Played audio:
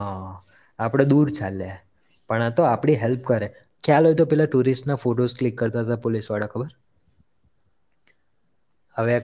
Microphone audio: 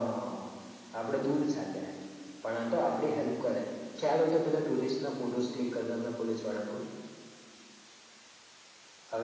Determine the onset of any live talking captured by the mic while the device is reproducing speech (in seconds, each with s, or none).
none